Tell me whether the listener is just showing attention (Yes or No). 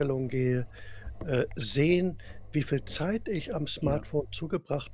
Yes